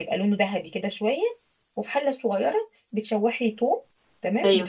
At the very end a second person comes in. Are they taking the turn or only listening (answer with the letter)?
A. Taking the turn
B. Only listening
B